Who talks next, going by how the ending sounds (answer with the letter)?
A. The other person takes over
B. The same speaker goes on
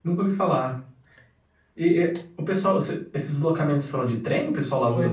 A